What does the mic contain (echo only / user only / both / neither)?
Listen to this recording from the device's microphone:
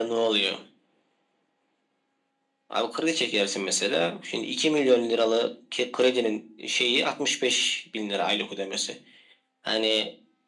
echo only